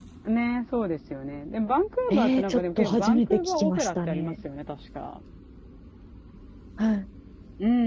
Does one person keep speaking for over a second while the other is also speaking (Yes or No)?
Yes